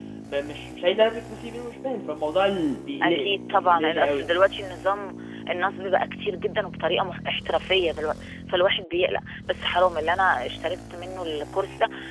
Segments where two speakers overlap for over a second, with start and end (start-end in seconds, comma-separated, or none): 3.0-4.2